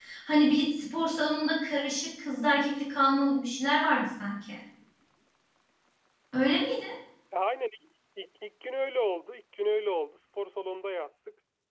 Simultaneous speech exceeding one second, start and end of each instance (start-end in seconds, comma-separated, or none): none